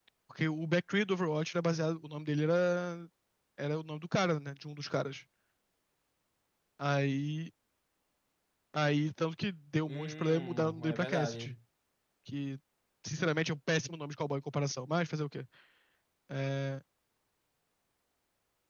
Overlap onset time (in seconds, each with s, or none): 9.9 s